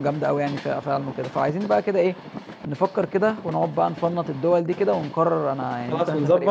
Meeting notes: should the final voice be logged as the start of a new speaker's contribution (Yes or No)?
Yes